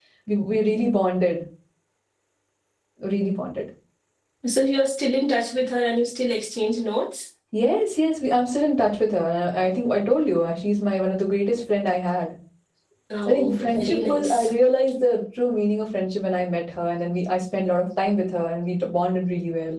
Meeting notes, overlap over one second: present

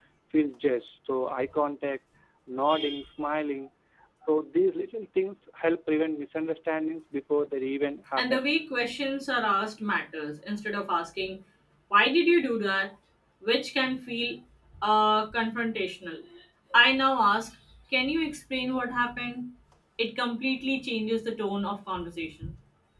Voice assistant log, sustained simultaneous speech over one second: none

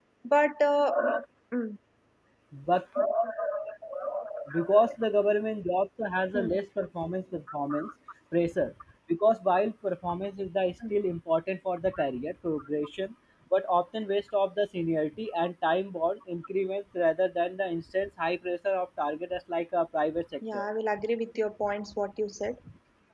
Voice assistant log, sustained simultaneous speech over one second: none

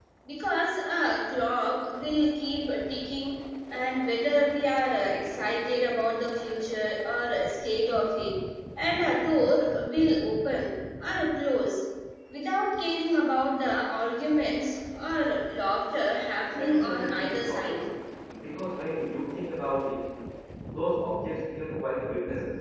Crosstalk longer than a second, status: present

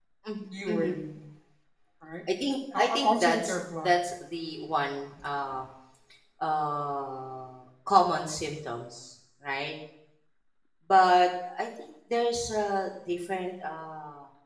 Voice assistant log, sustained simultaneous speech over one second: present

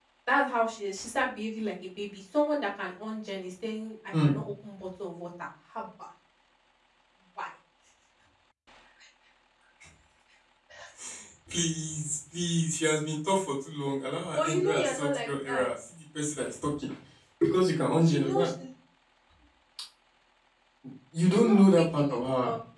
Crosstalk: present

